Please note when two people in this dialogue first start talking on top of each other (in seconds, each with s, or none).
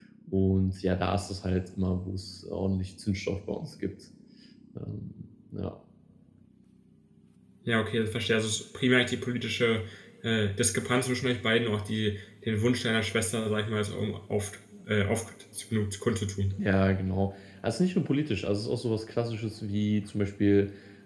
none